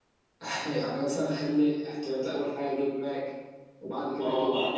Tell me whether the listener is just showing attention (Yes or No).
No